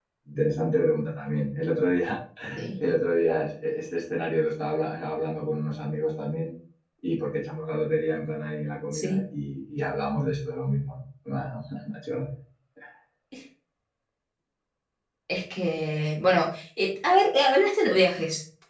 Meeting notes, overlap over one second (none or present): none